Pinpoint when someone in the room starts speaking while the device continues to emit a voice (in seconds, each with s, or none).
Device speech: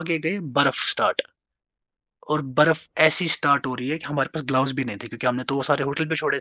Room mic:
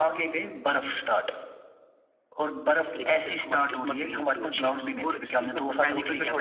3.0 s